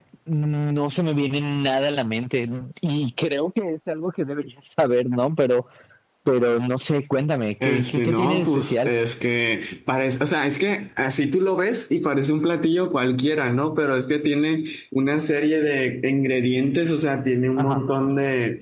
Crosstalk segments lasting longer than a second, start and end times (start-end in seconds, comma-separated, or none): 7.6-8.9